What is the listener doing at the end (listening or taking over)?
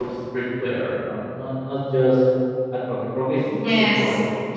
taking over